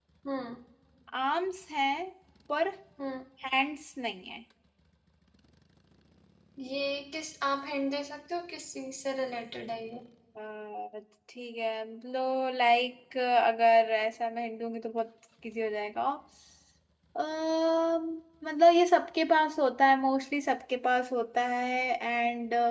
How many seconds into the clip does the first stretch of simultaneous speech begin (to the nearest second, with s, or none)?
none